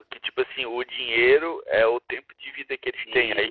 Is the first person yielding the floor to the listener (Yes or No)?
No